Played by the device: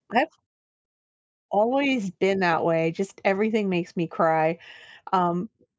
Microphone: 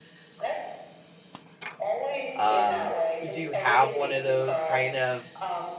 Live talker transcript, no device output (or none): Um, do you have one of those kind of